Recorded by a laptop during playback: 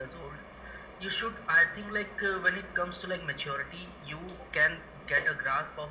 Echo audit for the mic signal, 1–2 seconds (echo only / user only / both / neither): echo only